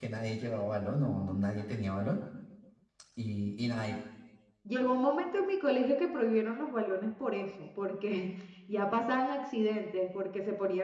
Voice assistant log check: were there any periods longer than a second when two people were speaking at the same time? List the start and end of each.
none

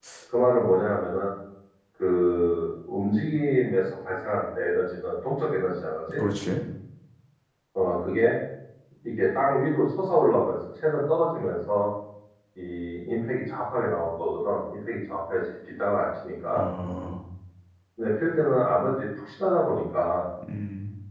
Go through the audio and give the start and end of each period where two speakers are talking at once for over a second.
none

